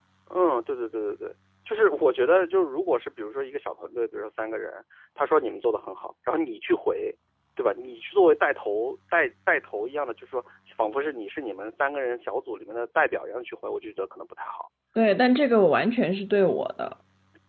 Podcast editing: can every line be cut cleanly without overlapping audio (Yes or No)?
Yes